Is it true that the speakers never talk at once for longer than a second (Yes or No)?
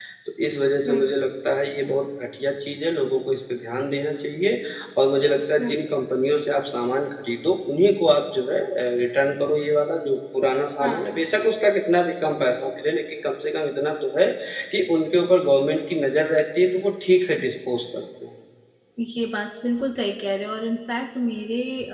Yes